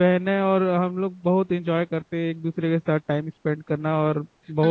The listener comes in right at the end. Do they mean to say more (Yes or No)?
Yes